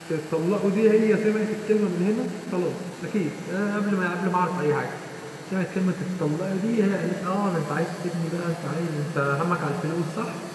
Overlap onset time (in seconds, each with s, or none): none